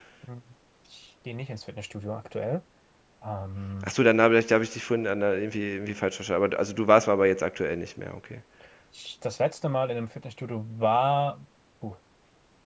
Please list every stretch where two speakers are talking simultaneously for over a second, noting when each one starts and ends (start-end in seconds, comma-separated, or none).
none